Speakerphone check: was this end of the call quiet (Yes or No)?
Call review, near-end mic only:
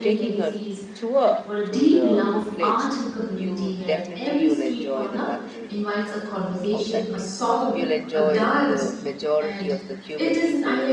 No